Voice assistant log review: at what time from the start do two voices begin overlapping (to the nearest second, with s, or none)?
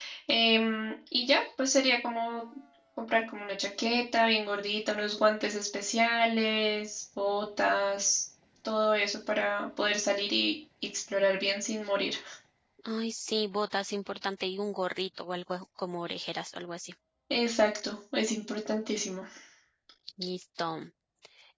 none